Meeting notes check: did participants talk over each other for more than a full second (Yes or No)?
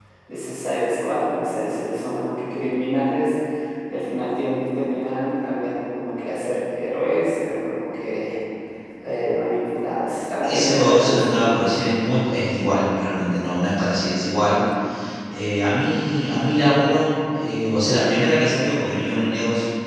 Yes